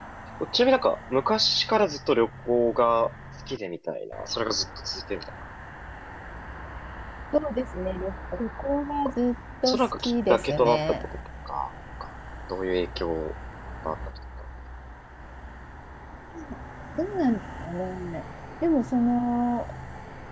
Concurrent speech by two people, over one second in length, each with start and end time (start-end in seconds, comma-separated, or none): 9.7-11.0